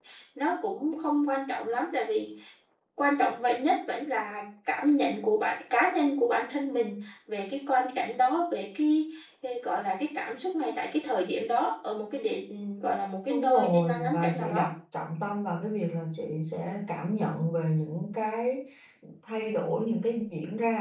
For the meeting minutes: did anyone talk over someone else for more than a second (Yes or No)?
Yes